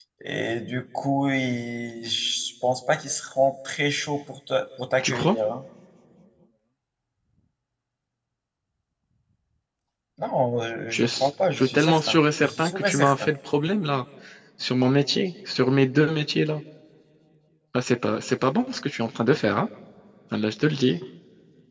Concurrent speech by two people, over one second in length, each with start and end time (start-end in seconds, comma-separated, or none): 10.9-13.3